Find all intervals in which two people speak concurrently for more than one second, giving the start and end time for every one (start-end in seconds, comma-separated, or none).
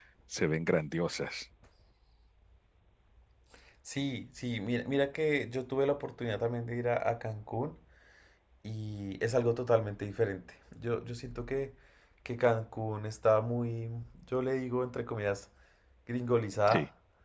none